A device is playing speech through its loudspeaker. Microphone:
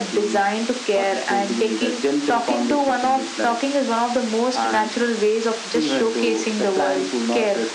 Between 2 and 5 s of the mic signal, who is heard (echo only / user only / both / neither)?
echo only